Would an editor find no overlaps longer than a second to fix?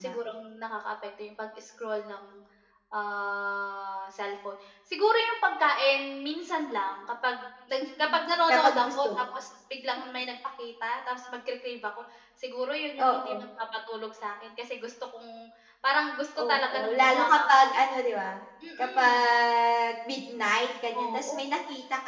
No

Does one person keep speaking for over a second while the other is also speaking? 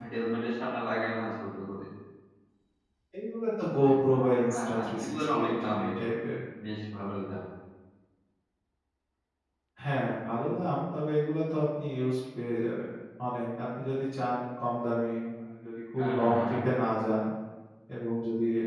Yes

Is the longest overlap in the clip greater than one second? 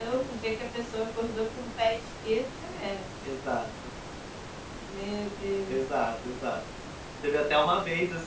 No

